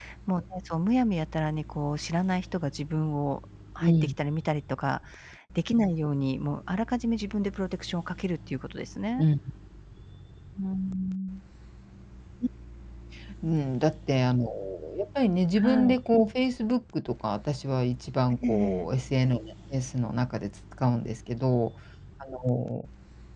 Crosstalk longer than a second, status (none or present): none